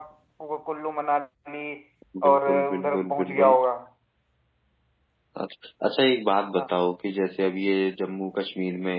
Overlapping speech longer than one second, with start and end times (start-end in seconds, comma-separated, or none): 2.3-3.6